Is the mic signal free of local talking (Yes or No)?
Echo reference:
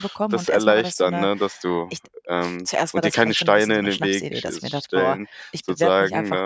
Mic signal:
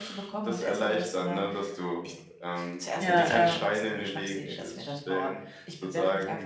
No